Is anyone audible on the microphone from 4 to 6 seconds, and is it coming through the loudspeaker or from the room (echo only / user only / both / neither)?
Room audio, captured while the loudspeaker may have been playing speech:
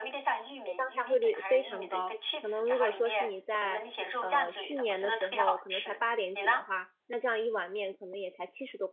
both